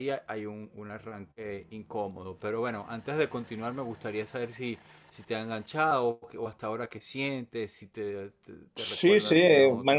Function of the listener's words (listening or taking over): taking over